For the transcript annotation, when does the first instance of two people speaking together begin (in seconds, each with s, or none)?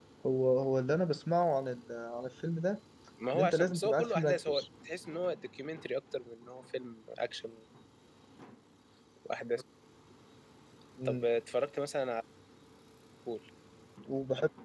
3.4 s